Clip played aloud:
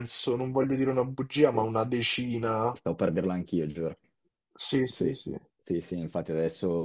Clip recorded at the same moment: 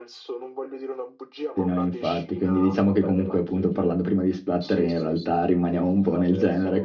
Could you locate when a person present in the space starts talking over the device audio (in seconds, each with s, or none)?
1.6 s